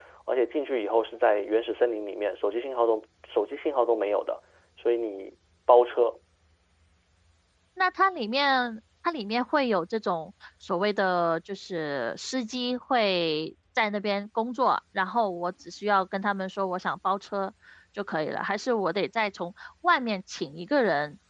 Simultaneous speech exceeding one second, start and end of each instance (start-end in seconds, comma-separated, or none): none